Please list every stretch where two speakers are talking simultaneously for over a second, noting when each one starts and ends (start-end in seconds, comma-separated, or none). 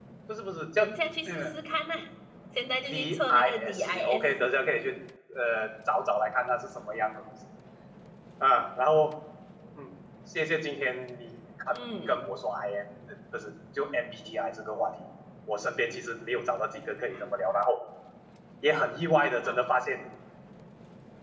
2.9-4.5